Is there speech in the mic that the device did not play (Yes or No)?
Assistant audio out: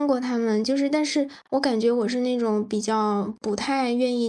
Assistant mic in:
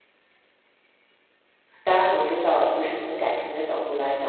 Yes